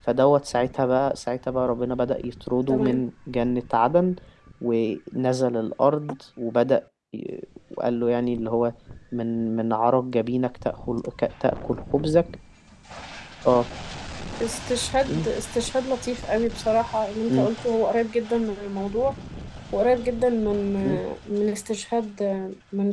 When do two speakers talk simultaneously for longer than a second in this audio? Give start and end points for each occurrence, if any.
none

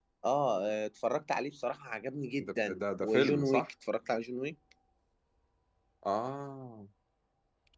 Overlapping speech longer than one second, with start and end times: 2.4-3.7

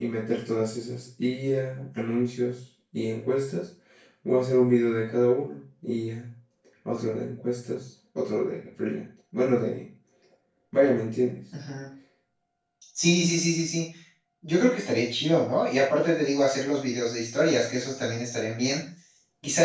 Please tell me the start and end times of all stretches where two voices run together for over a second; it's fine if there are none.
none

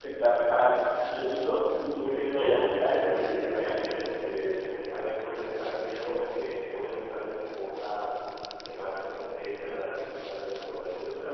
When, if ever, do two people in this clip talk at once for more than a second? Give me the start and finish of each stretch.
none

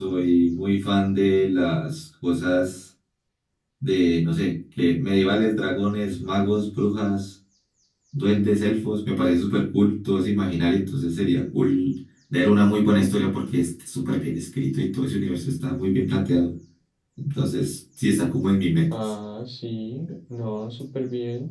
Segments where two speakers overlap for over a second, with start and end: none

